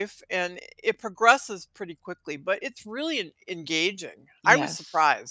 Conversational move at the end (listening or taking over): taking over